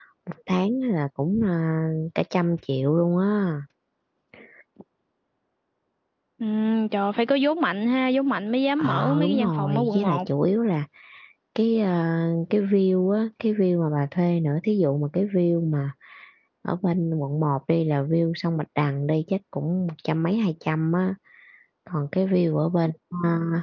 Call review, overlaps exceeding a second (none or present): present